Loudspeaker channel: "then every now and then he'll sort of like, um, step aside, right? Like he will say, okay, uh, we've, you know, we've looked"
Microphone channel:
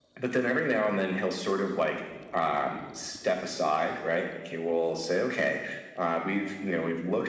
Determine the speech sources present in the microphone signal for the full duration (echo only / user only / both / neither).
echo only